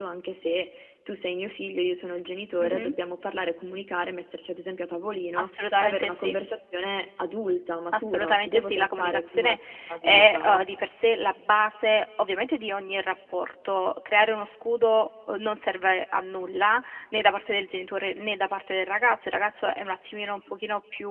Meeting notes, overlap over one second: present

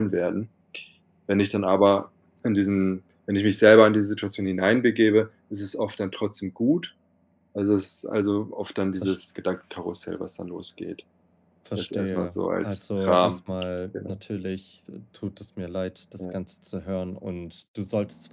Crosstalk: present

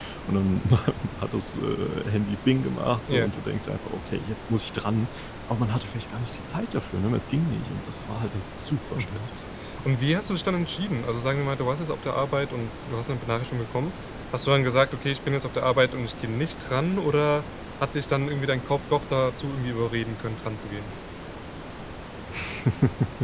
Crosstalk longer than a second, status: none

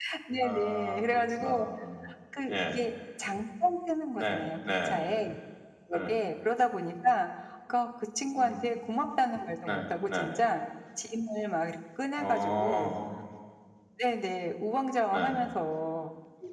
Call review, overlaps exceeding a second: present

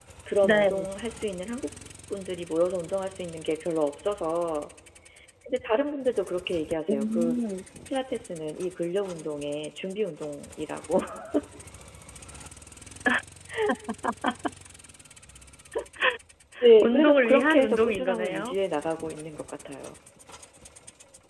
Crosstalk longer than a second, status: present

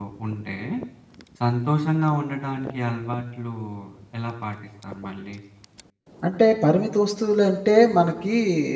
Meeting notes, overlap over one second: none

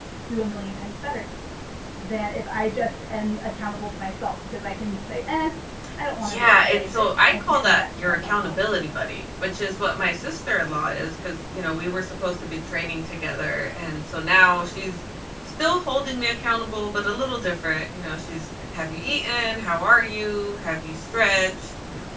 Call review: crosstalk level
present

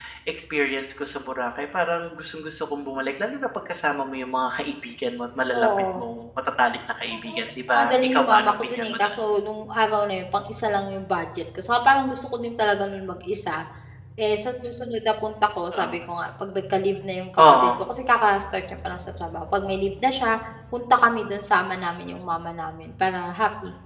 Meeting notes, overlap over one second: present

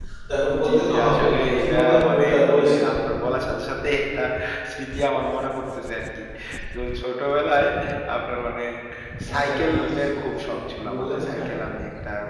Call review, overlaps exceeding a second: present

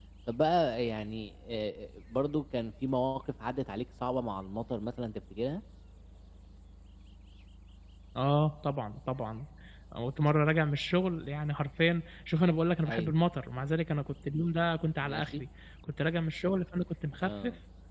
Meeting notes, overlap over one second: none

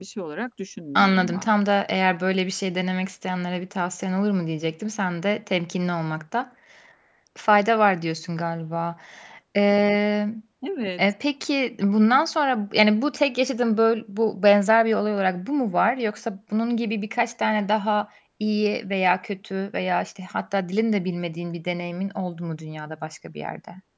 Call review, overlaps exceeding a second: none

